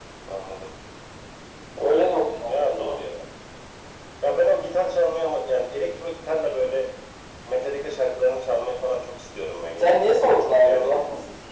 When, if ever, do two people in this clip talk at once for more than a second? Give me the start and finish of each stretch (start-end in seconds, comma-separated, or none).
none